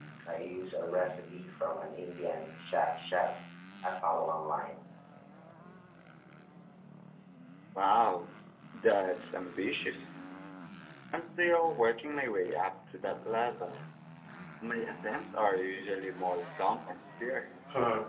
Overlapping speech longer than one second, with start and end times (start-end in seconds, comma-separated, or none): none